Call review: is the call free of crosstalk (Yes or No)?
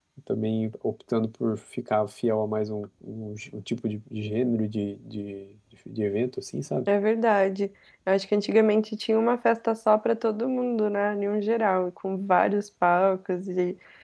Yes